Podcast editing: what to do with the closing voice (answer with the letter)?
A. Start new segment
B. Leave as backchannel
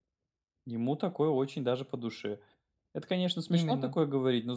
B